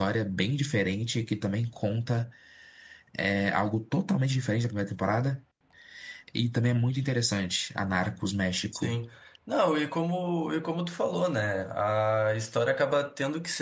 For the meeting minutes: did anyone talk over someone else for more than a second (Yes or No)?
No